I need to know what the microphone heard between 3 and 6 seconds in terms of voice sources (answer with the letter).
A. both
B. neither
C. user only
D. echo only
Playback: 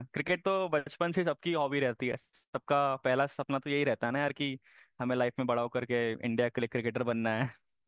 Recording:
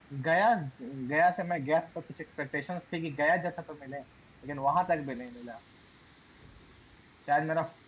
C